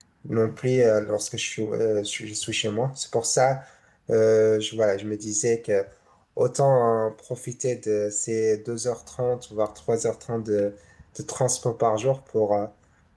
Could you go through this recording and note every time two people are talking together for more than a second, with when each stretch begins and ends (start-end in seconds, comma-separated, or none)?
none